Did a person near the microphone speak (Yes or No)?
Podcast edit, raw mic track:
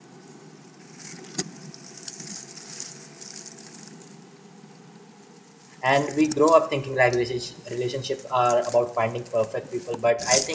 Yes